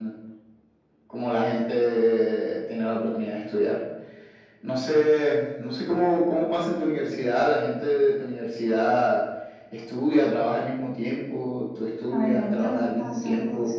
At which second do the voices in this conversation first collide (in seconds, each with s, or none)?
12.1 s